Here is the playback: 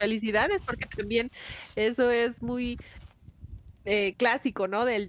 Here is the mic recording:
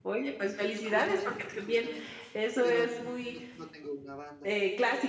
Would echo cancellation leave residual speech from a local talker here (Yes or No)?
Yes